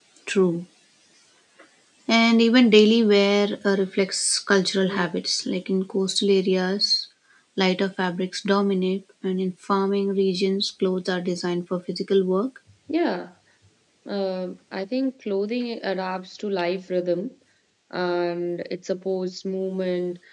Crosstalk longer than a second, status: none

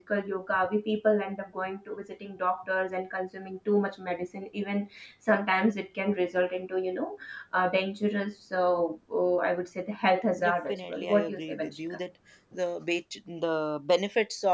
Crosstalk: present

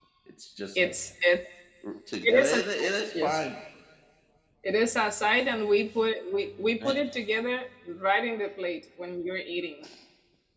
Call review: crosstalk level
present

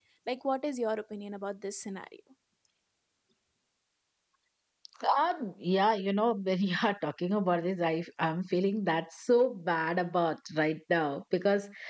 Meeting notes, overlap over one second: none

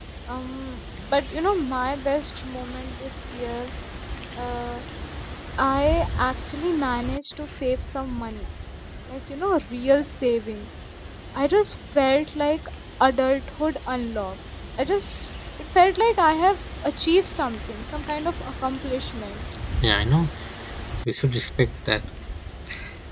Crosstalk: none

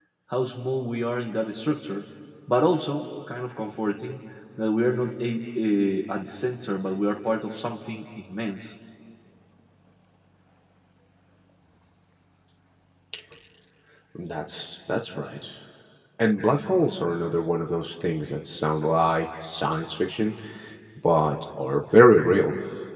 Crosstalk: none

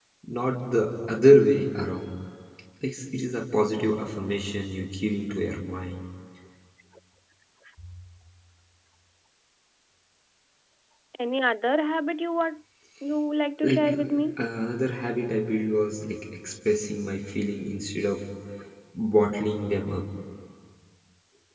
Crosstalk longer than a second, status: none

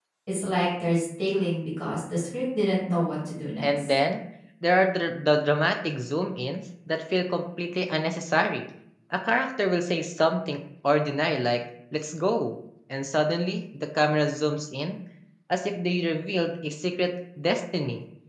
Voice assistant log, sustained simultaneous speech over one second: none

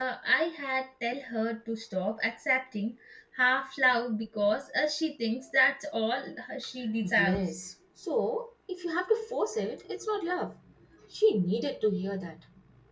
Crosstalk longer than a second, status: none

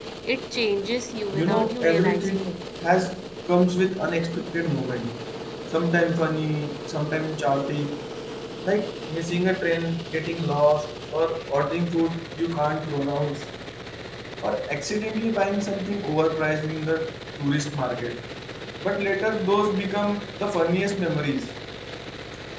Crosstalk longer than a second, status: present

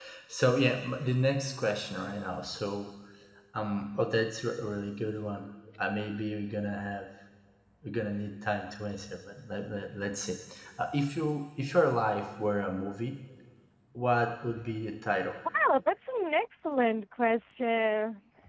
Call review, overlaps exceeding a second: none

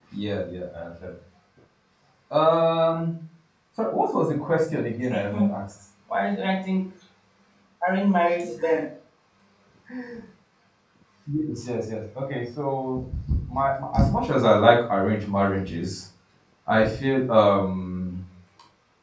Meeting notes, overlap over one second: none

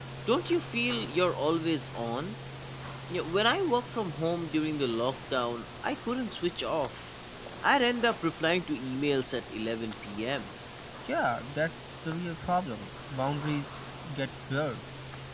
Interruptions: none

